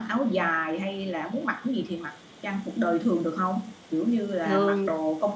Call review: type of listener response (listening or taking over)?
listening